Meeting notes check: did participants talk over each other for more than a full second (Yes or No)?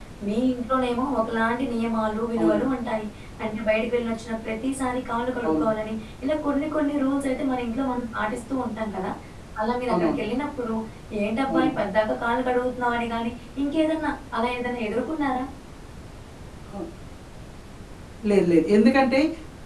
No